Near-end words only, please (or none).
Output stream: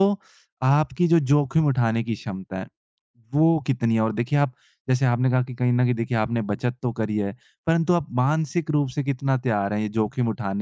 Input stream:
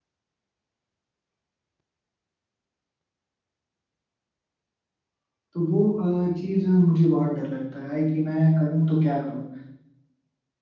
तो वो अ, चीज़ मुझे बहुत डर लगता है कि मैं करूँ तो क्या करूँ?